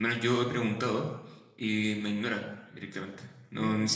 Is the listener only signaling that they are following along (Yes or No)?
Yes